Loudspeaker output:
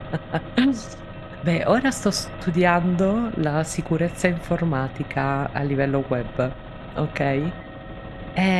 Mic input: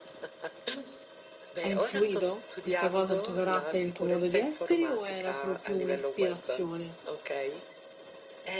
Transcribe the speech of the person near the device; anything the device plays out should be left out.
ha influito questa cosa, il tuo carattere, il tuo modo di essere o era solo più un'ispirazione.

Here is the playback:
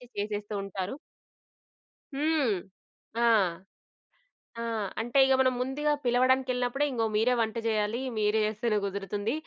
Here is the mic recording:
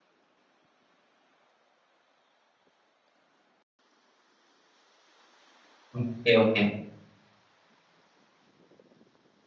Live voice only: ఓకే. ఓకే.

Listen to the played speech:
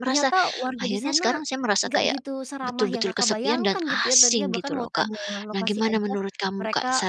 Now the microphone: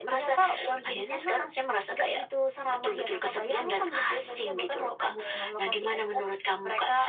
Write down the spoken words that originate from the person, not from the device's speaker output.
none

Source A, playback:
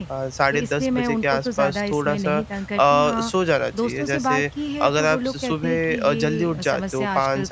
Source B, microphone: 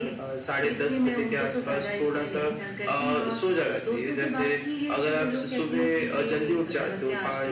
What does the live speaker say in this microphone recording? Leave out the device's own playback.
none

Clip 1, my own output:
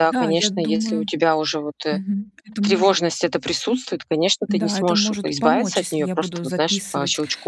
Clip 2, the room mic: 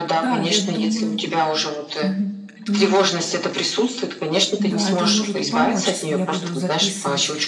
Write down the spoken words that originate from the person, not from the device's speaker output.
none

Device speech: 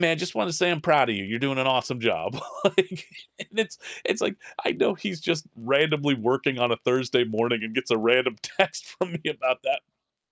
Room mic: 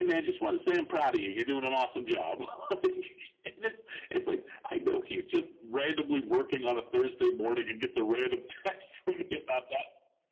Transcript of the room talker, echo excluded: none

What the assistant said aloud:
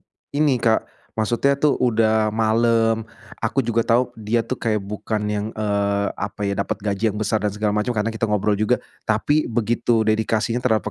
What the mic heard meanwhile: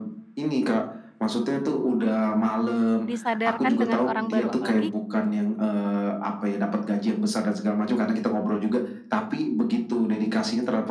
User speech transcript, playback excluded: disadarkan dengan orang baru apalagi

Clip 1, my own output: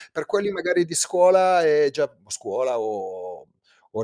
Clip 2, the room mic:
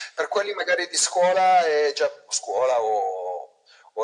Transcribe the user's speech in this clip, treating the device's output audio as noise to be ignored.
none

